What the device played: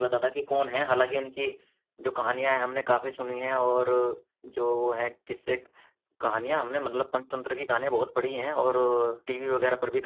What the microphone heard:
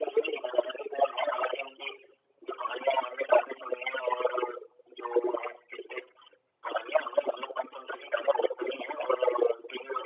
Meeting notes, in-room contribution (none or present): none